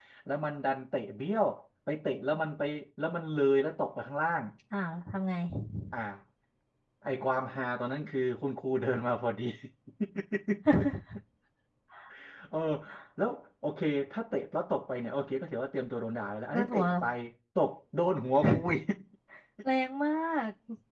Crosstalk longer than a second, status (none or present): none